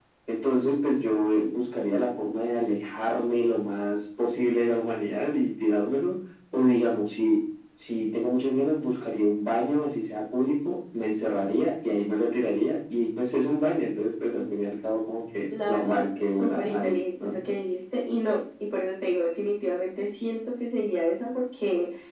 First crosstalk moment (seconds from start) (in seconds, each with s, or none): 15.5 s